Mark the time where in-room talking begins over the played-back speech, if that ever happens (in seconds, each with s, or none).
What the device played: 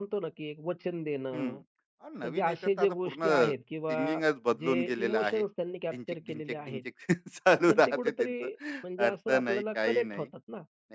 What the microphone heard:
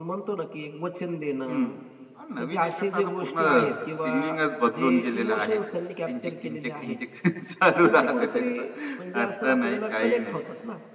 none